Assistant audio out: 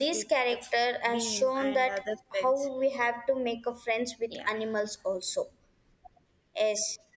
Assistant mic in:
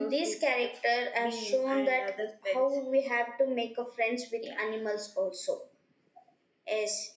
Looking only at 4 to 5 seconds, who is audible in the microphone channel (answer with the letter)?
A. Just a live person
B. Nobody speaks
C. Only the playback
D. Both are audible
C